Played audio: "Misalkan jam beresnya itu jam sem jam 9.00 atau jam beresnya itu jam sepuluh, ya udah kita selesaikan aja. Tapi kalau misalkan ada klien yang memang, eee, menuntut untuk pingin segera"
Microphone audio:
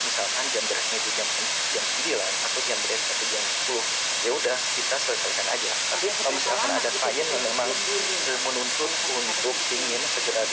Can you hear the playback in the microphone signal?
Yes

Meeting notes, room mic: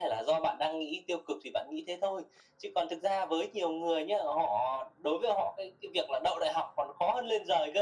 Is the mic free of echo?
No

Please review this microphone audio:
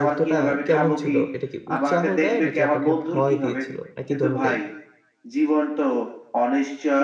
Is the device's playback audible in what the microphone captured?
Yes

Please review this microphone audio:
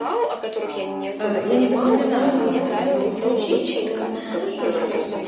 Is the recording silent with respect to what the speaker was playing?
No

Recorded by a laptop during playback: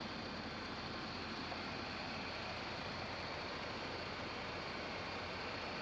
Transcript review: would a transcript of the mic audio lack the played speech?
Yes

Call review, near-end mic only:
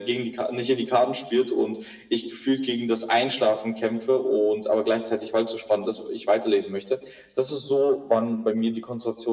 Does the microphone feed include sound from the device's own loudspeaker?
Yes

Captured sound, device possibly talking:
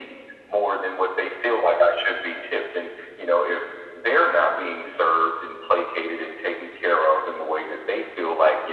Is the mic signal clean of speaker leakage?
No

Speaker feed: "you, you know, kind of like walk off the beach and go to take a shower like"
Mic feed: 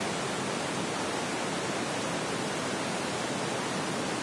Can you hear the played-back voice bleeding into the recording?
No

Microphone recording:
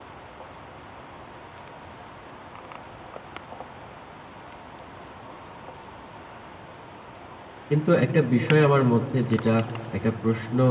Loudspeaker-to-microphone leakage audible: No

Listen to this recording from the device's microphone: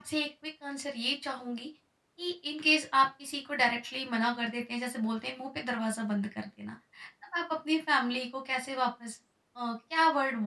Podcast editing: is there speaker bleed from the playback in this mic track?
No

